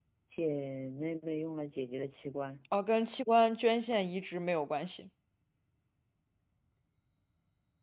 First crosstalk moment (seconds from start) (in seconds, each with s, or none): none